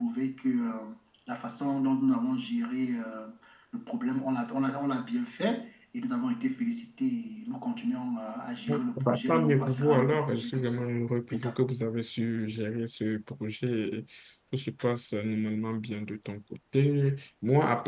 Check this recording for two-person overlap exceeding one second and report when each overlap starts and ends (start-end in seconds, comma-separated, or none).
8.7-10.8